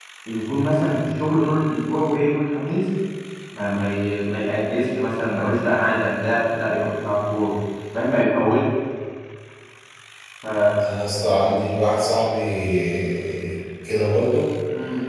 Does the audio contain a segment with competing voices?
No

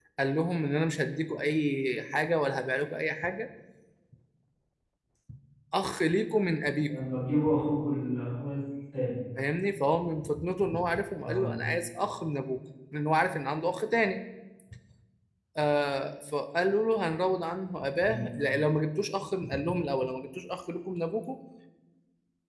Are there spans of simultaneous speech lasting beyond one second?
No

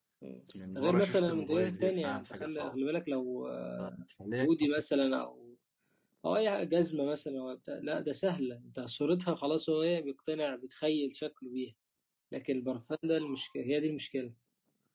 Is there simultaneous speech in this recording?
Yes, from 0.8 s

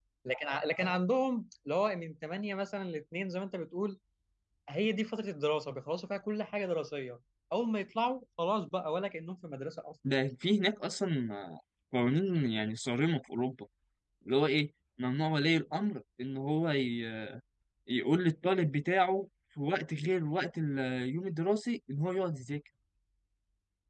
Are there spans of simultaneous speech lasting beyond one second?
No

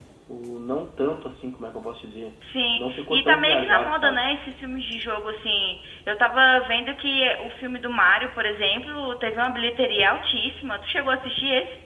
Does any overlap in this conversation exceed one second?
Yes, from 2.8 s

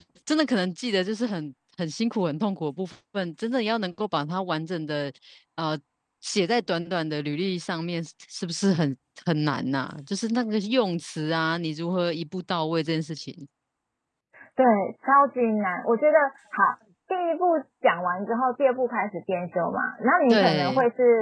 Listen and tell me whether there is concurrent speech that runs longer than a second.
No

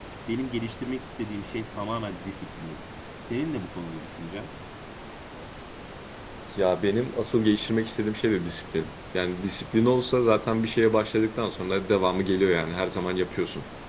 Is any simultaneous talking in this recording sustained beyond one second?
No

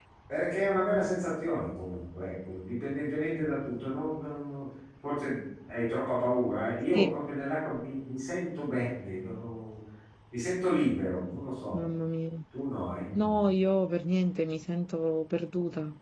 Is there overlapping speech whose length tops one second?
No

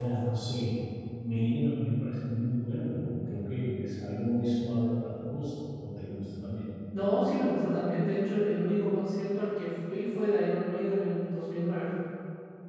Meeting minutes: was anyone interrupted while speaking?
No

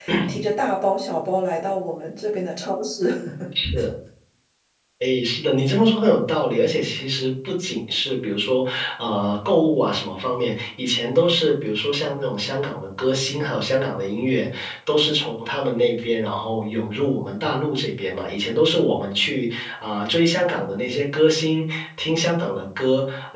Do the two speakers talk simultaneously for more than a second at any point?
No

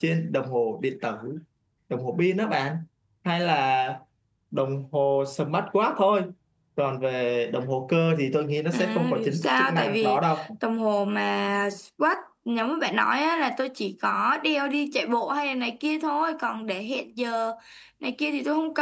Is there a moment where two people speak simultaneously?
Yes, from 8.7 s

